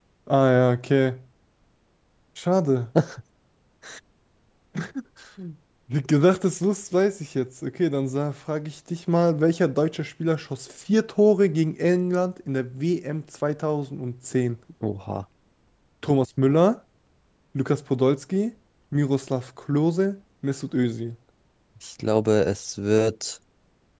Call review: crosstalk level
none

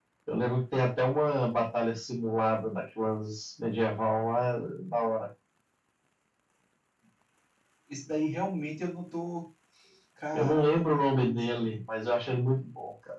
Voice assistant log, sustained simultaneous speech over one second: present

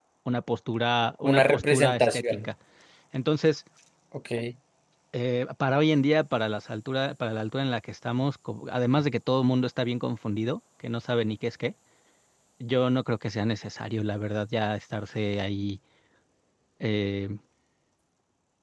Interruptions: present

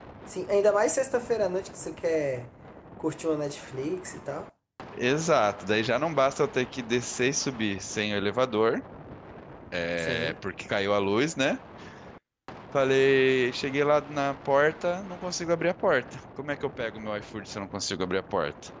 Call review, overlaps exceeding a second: none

